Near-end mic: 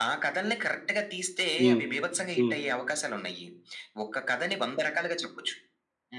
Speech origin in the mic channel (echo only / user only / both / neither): both